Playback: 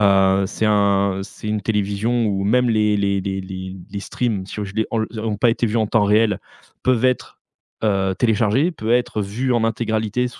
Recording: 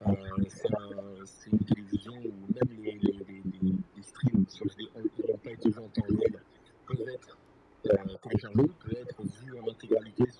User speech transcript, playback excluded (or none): none